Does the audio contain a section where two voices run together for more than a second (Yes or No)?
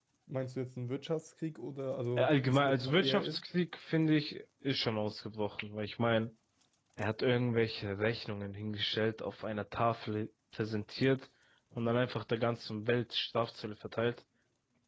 Yes